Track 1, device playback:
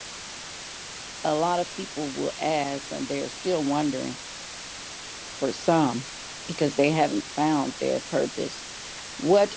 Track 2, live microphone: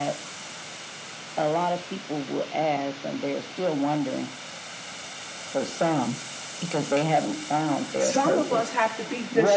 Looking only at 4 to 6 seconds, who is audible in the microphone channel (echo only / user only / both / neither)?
echo only